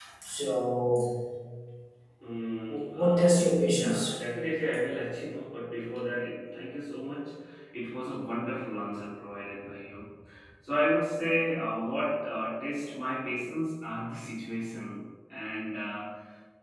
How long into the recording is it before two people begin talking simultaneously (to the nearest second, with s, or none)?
3 s